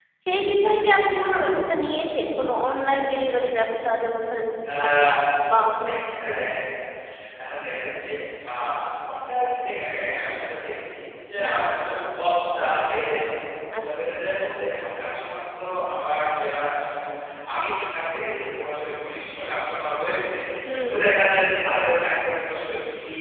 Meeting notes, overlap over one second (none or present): none